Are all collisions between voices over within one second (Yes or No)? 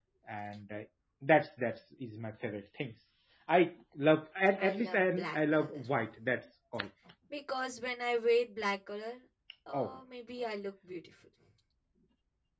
No